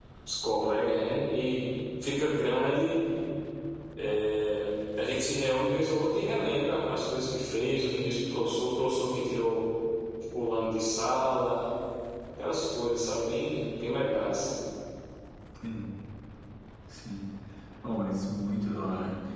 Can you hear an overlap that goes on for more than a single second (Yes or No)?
No